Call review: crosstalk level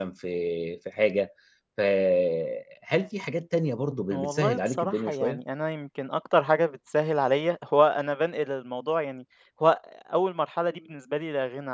present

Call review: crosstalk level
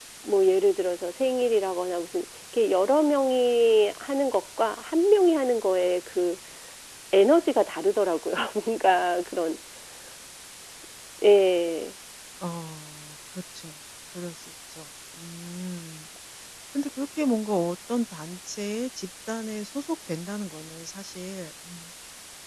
none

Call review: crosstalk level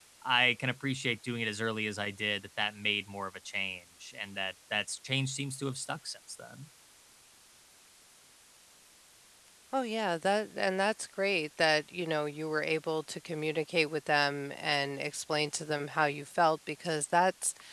none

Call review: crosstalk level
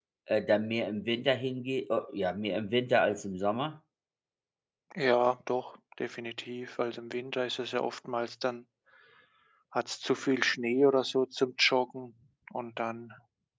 none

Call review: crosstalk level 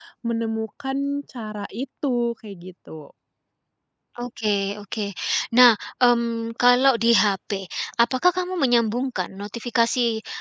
none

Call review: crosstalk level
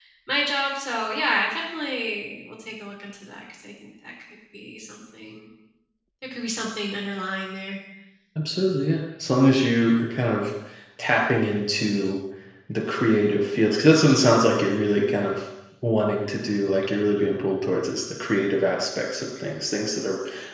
none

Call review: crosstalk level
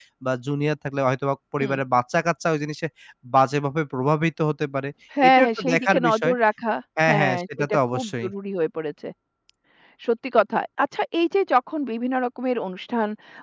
present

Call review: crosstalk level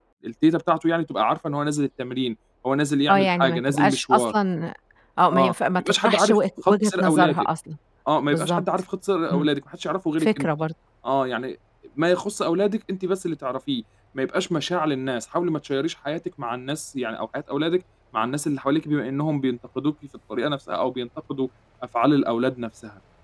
present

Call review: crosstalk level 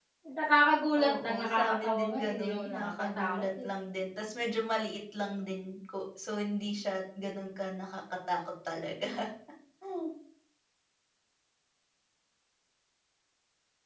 present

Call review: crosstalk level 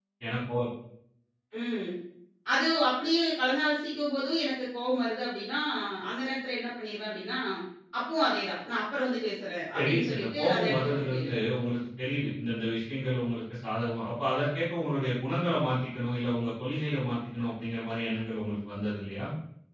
present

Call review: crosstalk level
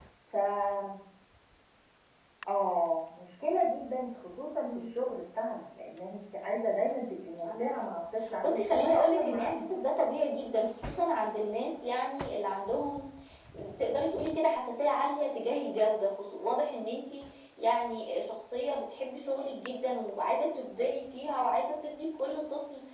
present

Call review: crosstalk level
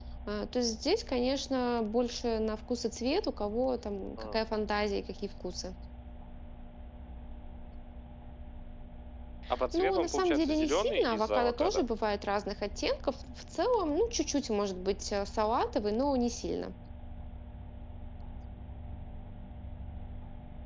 present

